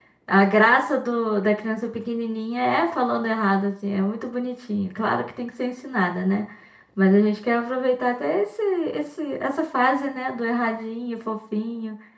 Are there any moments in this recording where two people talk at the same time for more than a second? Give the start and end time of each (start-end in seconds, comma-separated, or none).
none